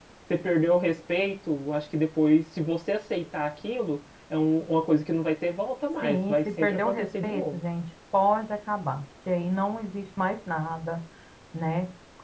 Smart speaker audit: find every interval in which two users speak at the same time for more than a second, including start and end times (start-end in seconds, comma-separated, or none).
6.0-7.6